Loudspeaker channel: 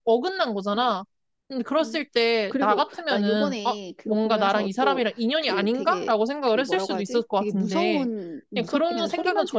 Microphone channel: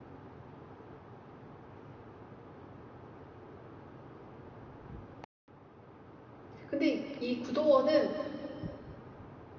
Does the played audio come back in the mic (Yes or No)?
No